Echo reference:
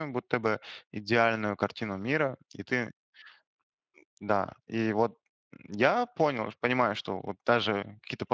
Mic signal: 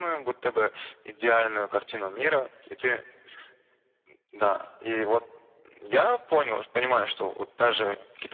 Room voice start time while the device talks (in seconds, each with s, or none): none